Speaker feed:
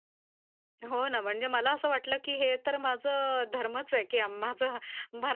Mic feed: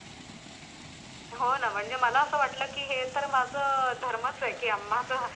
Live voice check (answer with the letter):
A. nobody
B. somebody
A